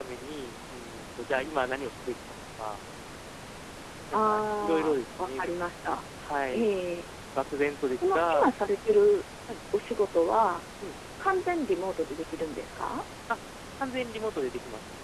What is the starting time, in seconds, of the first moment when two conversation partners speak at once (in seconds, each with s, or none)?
4.1 s